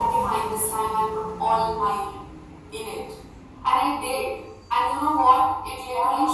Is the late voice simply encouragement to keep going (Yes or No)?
Yes